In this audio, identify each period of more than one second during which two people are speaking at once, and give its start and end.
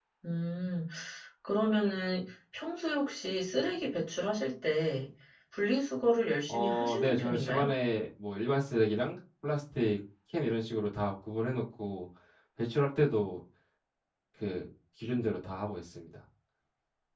6.5-7.7

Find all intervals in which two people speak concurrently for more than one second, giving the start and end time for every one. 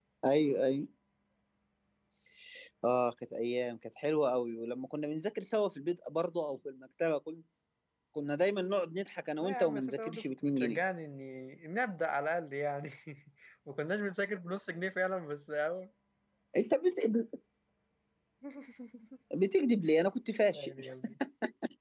9.4-10.8

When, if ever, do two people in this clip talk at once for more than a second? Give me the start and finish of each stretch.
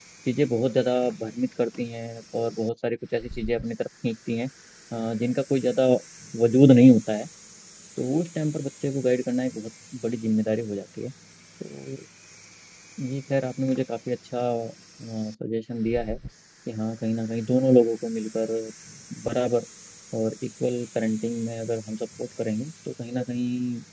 none

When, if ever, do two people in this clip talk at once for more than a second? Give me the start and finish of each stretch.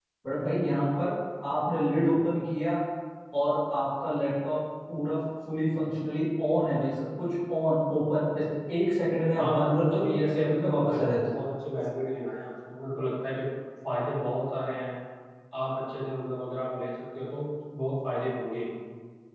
9.4-11.3

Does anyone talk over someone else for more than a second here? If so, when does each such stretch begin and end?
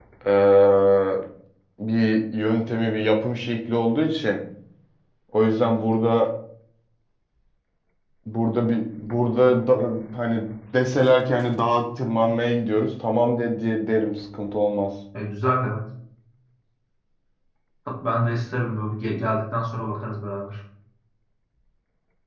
none

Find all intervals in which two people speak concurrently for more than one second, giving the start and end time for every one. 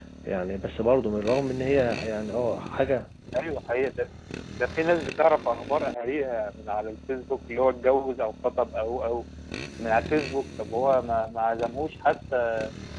none

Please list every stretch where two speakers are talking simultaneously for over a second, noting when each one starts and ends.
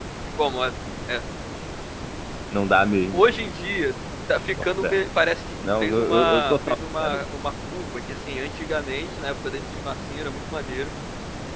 5.8-7.2

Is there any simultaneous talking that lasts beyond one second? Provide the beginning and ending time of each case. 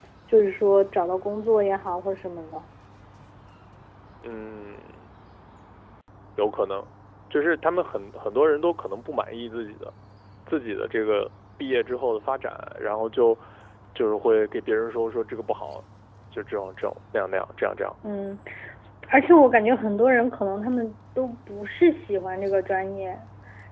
none

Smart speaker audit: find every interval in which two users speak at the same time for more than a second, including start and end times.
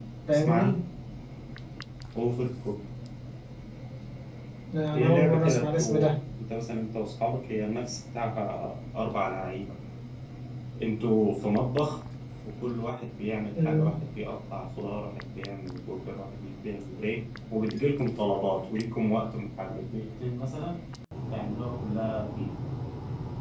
4.9-6.2

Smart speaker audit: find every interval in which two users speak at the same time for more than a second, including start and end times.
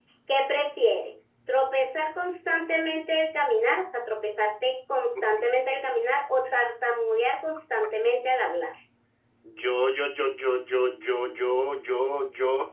none

